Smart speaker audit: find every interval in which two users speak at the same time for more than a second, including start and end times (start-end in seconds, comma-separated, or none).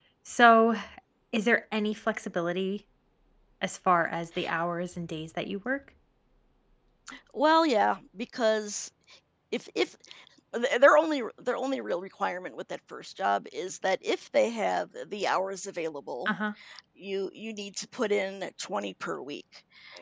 none